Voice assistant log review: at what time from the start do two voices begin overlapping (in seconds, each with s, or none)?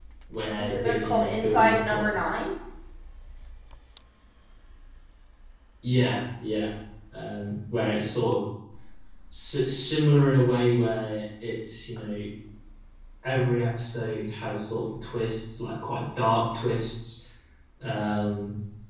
0.6 s